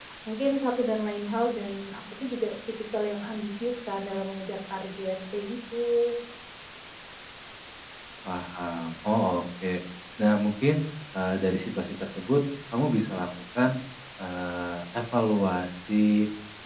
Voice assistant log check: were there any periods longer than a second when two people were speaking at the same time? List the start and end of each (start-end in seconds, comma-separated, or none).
none